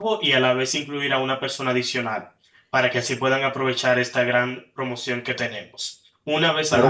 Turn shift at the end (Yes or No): Yes